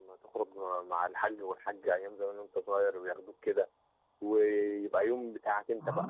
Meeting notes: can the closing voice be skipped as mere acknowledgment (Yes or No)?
No